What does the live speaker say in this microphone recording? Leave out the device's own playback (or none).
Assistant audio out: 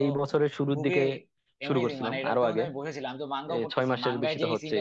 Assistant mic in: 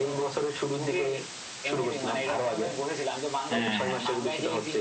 হ্যাঁ হ্যাঁ